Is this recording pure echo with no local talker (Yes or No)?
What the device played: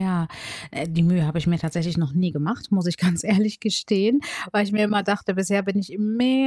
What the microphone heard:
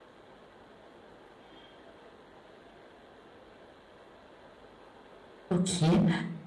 No